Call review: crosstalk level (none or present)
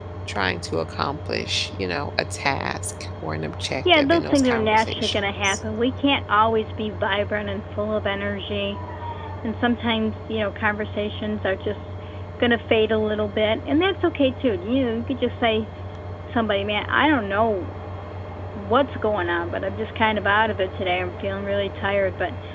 present